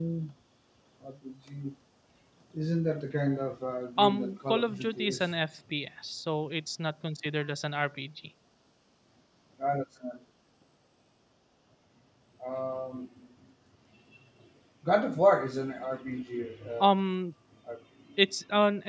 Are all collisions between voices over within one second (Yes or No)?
No